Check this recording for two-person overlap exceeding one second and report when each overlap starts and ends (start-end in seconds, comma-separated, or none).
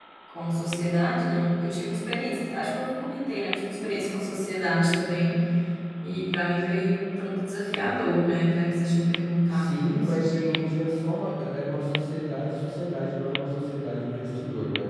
9.5-10.8